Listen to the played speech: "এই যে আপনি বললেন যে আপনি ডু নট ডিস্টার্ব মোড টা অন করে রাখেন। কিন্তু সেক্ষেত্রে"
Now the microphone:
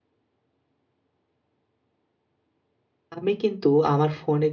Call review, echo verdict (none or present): none